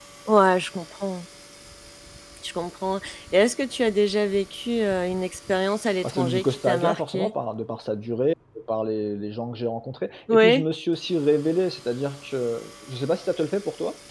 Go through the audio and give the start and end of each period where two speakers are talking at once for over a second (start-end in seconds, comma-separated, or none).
6.0-7.3